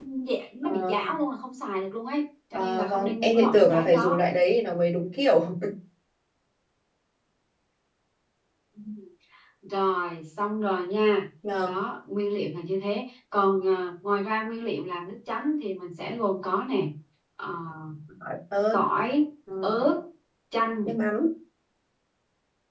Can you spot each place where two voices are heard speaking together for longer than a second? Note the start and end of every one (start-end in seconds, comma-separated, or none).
2.5-4.2